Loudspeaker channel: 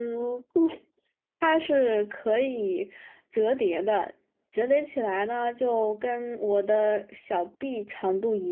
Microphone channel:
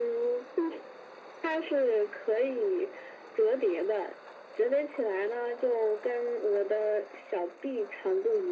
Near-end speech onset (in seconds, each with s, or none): none